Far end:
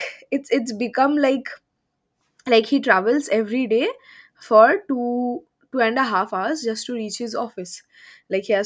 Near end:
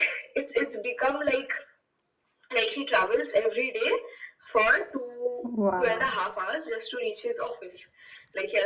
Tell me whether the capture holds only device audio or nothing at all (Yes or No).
No